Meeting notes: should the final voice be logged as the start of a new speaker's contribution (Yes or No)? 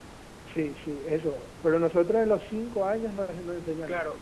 Yes